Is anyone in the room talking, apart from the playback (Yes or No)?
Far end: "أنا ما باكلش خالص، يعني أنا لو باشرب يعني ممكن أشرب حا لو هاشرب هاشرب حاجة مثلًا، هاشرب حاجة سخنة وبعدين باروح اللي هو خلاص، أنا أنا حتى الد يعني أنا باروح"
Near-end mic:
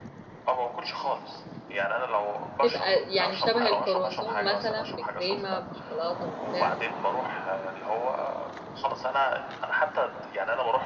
Yes